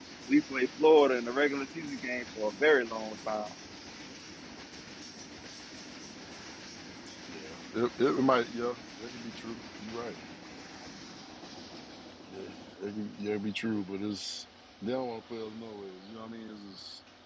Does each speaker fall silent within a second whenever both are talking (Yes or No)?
Yes